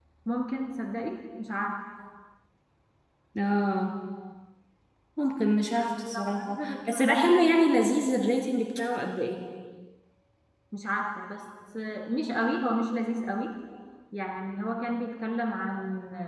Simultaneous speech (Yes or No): Yes